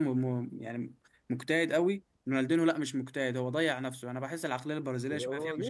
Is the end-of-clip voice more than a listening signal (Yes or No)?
Yes